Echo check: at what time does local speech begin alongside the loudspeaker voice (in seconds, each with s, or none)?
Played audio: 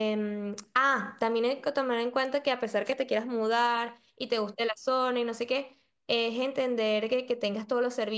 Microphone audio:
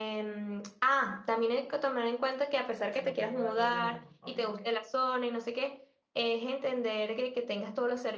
2.9 s